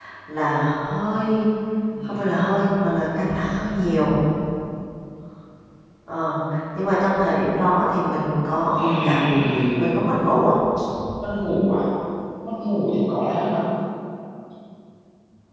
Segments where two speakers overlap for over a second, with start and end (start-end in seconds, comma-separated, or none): 8.7-10.1